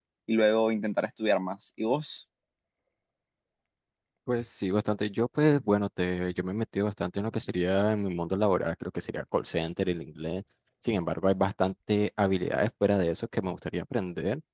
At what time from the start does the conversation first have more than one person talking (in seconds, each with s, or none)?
none